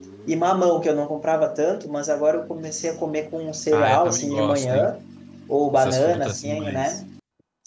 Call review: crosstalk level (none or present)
present